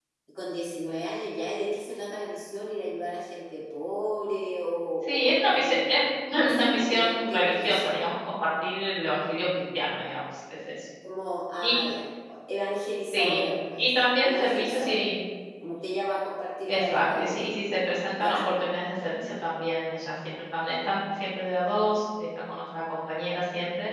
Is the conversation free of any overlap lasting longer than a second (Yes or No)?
No